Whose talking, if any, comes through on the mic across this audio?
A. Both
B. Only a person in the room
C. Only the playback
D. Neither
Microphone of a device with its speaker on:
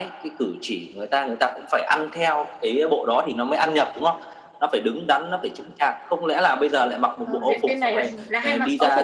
A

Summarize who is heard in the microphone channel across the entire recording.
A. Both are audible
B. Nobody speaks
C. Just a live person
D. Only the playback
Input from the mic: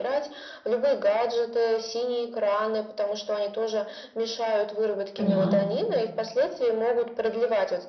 A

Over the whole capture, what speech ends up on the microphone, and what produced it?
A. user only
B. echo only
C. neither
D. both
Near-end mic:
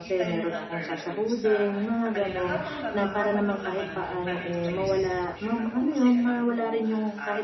D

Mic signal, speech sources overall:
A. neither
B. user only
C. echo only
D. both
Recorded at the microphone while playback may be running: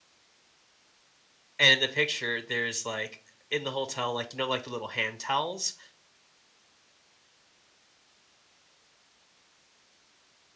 B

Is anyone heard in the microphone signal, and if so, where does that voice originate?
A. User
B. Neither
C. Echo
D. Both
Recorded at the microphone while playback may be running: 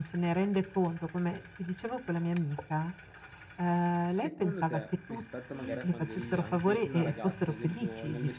D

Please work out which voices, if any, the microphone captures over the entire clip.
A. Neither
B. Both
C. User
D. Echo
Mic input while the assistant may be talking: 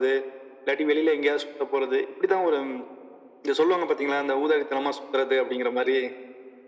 D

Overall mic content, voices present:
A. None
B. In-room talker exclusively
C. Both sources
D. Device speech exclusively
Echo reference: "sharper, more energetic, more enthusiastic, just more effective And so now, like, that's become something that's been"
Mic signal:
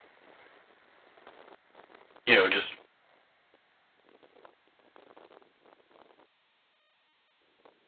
B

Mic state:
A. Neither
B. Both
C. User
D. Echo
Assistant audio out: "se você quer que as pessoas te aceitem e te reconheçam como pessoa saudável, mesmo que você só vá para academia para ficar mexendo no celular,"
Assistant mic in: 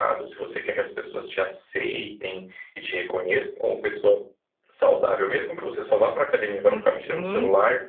B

